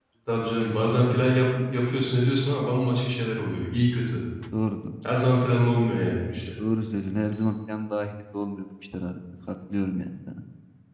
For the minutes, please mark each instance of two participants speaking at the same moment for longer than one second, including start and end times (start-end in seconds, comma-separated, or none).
none